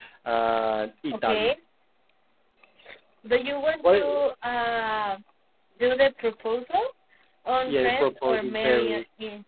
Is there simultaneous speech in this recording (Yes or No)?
Yes